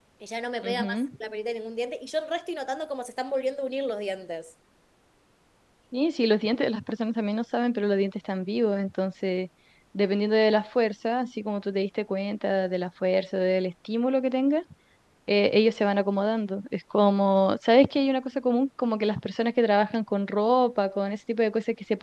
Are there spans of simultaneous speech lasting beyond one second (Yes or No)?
No